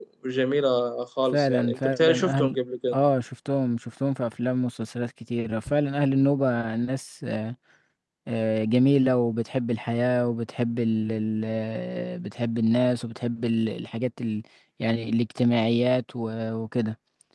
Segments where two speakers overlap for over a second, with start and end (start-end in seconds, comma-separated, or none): 1.3-2.5